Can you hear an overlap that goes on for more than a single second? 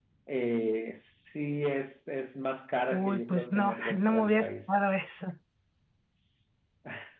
Yes, from 2.9 s

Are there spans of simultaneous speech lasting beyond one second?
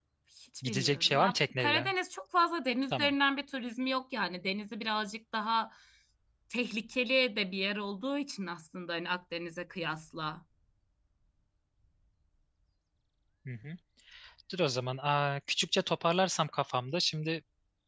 Yes, from 0.7 s

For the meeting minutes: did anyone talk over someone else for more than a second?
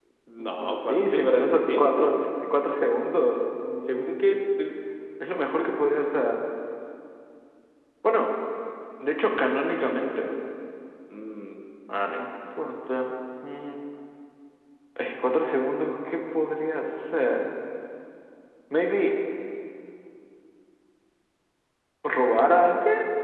Yes, from 0.6 s

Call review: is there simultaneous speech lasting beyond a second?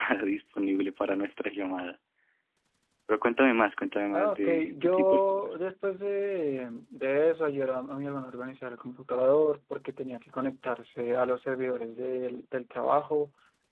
Yes, from 4.1 s

